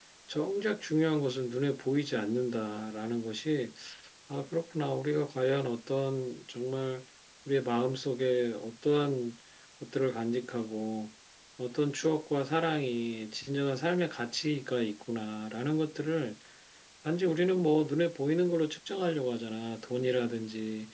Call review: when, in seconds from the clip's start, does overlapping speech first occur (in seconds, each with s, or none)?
none